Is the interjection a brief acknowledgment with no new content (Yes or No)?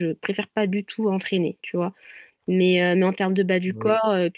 Yes